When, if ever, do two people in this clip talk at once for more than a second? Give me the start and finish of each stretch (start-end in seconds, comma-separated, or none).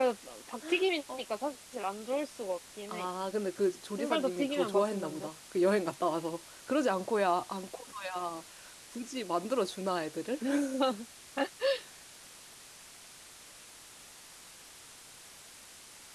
4.0-5.3